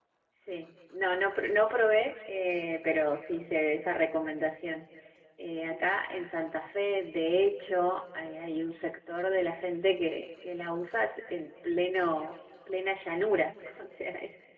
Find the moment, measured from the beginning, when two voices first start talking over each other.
none

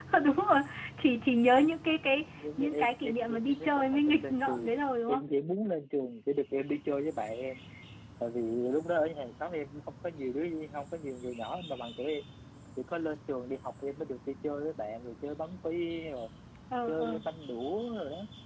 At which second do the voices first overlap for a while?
2.6 s

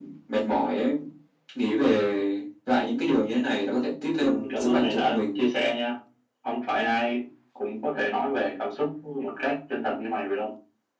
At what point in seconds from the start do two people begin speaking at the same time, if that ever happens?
4.2 s

